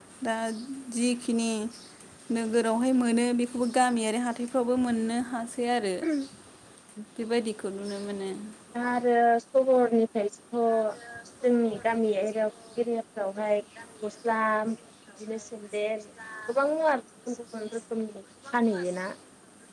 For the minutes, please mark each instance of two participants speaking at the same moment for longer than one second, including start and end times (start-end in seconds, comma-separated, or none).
none